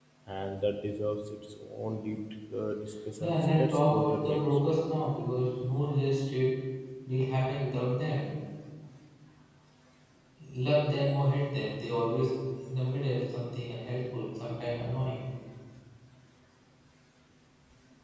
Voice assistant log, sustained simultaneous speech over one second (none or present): present